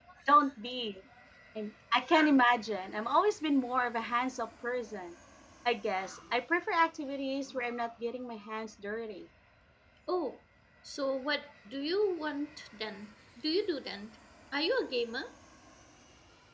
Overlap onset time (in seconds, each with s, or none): none